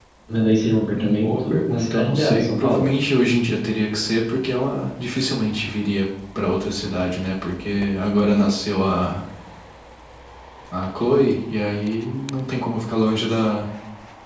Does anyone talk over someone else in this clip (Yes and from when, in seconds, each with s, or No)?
Yes, from 1.2 s